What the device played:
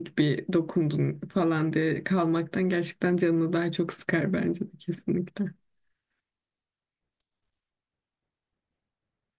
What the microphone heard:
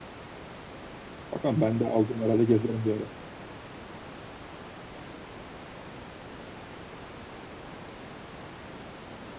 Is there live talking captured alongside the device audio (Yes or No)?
Yes